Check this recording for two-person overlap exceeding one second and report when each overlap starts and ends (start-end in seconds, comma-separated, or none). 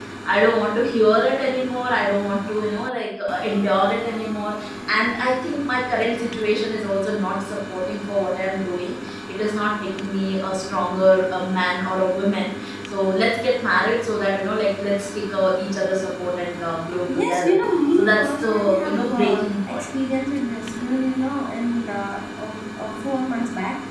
18.0-19.9